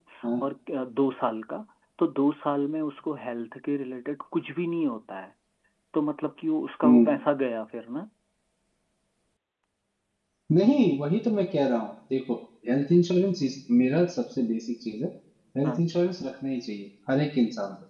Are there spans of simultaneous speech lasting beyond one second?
No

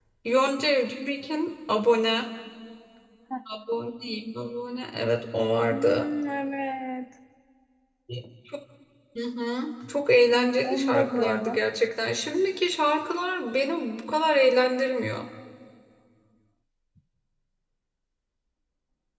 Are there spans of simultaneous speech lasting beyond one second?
Yes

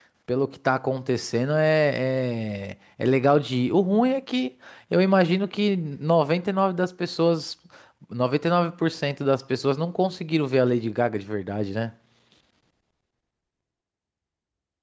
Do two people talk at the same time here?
No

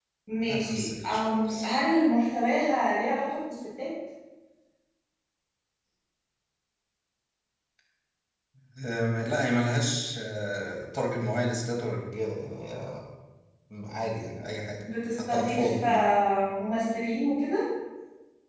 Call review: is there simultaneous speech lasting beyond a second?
Yes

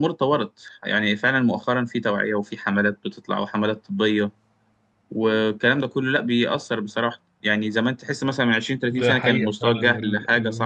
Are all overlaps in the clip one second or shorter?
No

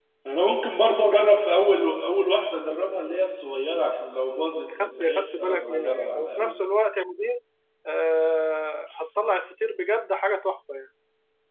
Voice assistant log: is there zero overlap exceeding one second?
No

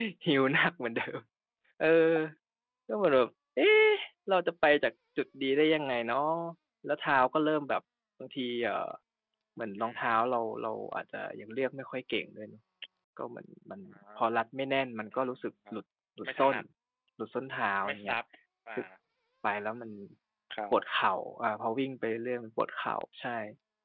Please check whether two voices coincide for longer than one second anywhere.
No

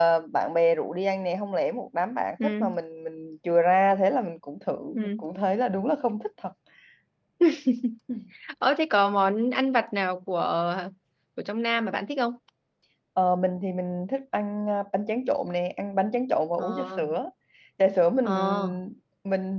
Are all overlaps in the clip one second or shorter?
Yes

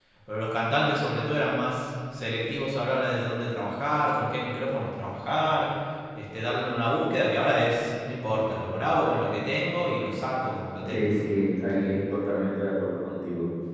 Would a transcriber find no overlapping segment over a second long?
Yes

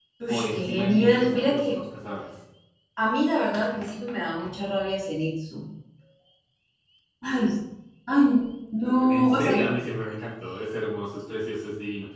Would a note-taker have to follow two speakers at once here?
Yes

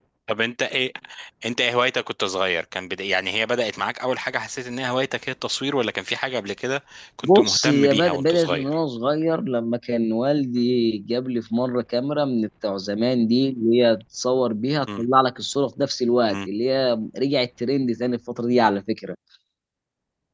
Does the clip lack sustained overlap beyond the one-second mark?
No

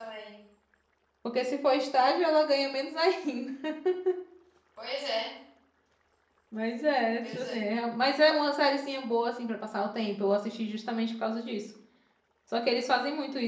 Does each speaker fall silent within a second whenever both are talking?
Yes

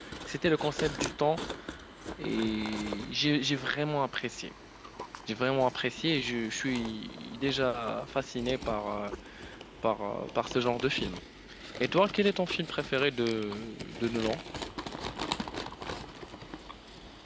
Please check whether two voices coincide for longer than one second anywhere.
No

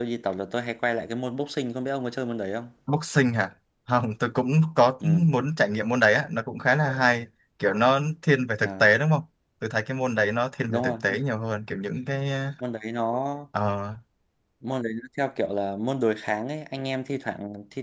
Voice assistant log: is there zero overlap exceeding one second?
Yes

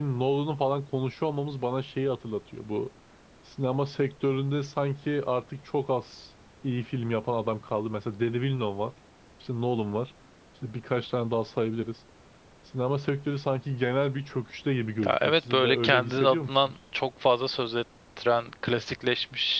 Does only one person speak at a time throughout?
No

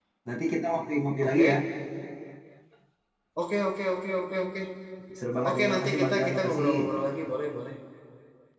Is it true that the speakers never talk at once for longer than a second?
No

